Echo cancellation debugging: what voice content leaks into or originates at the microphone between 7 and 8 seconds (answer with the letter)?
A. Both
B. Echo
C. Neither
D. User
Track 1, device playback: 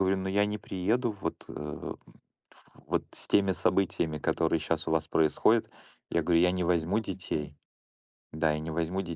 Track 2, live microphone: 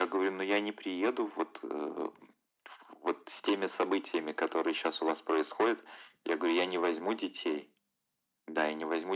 B